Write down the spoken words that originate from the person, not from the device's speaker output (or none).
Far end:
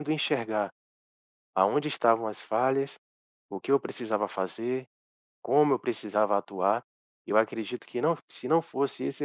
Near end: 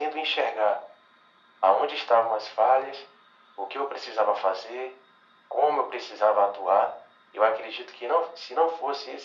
none